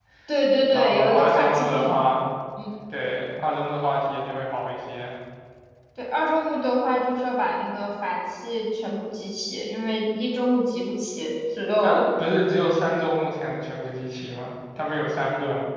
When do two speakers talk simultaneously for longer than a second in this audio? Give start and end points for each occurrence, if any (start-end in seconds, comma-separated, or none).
0.7-2.0